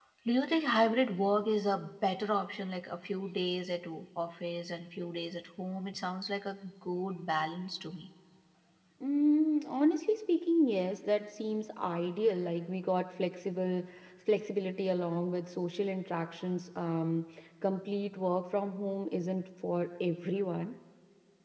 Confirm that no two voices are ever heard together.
Yes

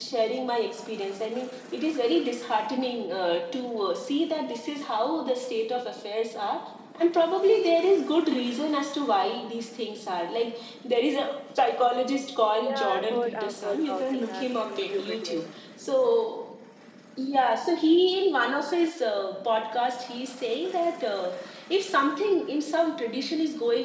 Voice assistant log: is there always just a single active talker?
No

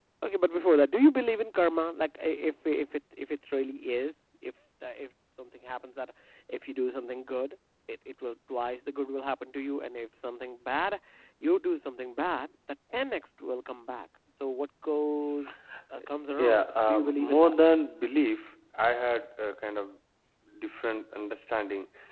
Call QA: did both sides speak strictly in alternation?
No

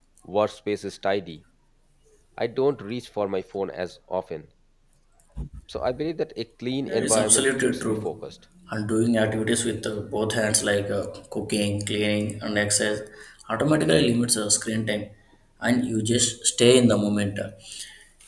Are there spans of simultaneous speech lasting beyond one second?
Yes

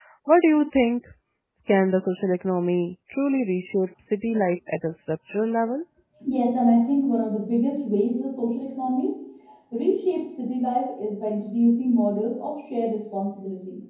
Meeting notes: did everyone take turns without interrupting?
Yes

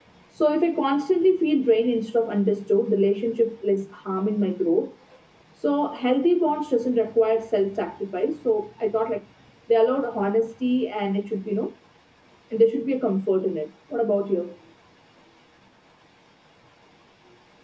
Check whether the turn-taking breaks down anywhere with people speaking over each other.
No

